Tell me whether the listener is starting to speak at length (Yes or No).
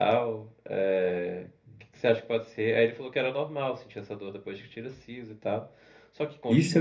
Yes